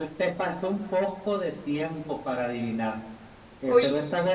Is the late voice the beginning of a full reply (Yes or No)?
No